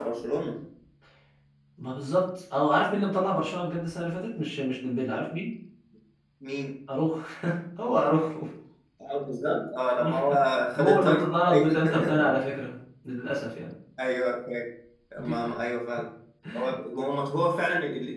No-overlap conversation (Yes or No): No